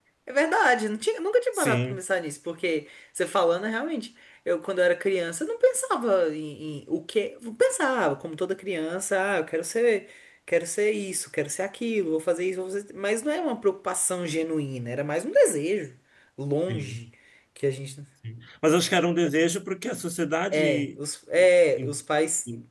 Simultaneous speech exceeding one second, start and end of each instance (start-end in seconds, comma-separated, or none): none